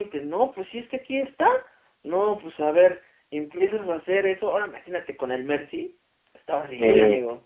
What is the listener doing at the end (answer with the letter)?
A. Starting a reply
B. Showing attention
A